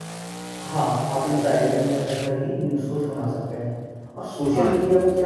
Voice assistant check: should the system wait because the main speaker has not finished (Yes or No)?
Yes